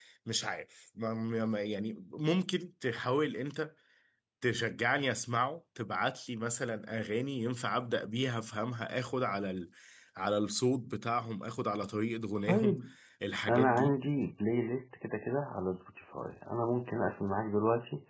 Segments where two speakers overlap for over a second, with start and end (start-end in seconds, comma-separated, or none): none